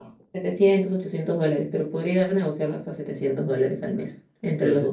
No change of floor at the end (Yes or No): No